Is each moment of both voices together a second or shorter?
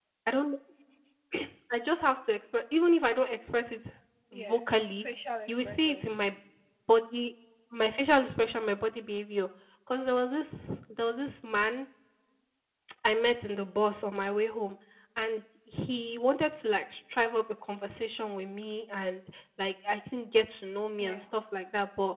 Yes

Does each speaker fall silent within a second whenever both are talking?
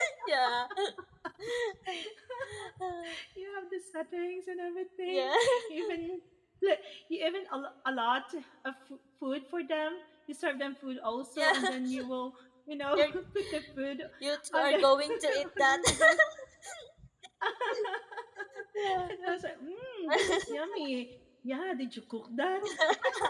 No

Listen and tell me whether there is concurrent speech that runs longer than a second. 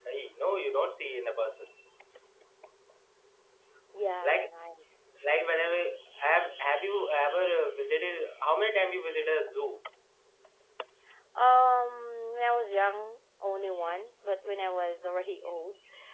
No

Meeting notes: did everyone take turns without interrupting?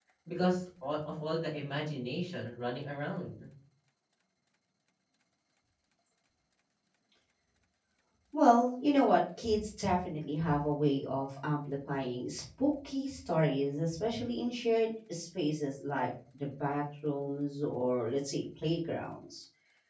Yes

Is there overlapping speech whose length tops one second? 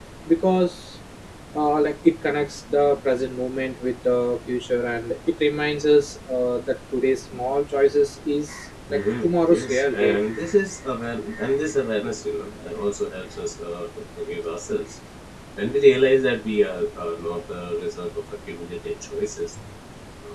Yes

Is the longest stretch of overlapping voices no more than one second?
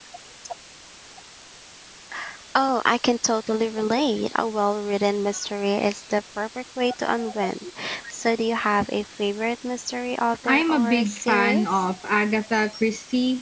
No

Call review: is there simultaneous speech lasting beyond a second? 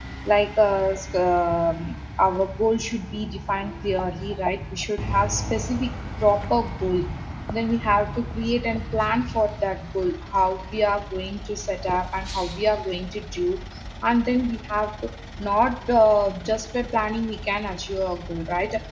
No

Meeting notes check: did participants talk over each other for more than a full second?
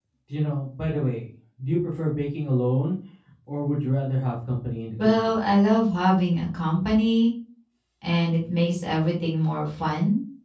No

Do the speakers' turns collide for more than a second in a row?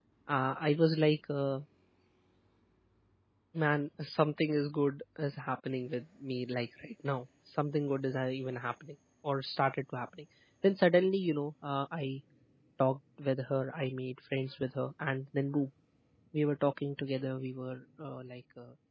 No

